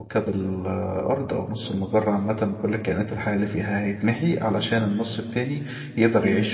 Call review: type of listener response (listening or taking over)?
listening